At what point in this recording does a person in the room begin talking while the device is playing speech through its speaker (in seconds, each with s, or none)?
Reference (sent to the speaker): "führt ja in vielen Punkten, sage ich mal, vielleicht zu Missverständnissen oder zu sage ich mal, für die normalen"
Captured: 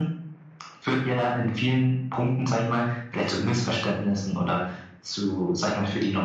none